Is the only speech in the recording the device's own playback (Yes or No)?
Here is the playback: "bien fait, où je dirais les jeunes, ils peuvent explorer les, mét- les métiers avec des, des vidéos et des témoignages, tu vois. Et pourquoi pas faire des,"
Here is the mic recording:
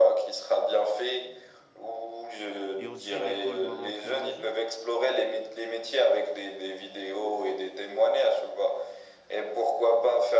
No